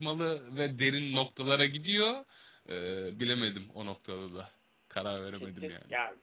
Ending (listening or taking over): taking over